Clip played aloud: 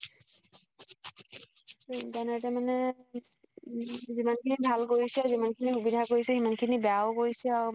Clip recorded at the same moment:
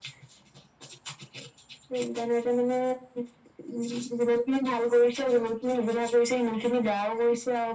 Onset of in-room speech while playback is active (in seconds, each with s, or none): none